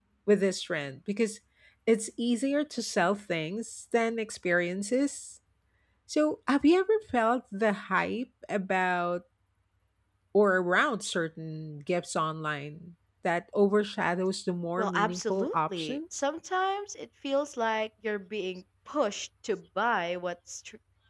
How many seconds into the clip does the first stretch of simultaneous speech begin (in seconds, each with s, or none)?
14.8 s